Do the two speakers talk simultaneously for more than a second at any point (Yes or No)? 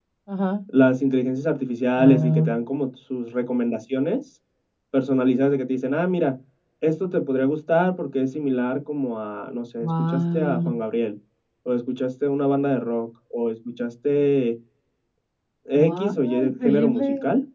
Yes